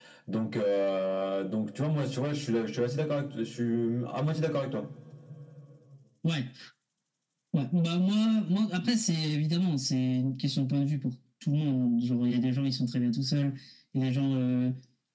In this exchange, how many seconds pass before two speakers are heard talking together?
none

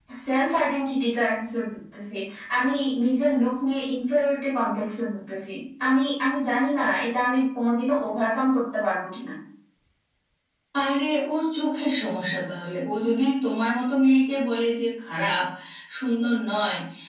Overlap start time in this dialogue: none

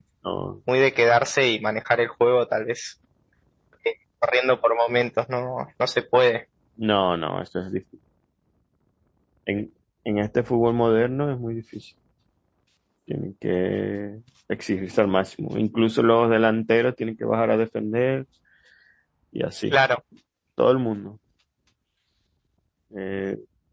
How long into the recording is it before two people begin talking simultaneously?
none

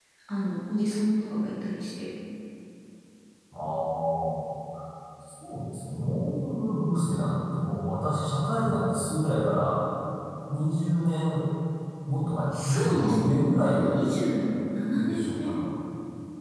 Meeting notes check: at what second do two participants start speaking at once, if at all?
13 s

